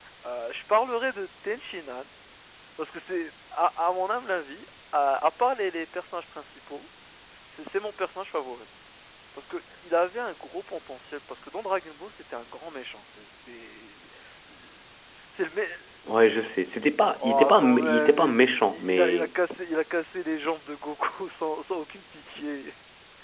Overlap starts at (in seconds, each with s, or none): 17.2 s